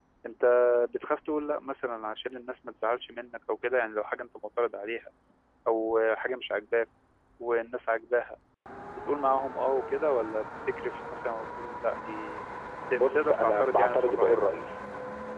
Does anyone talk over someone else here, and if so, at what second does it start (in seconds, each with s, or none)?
12.9 s